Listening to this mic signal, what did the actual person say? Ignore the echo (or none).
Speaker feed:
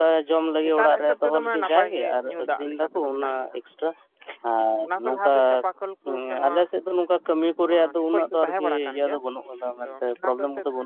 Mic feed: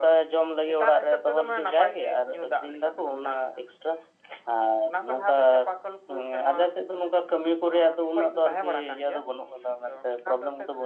none